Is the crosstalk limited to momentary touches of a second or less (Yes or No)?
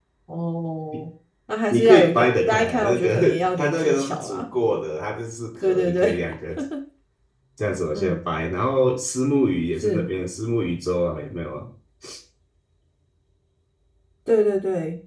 No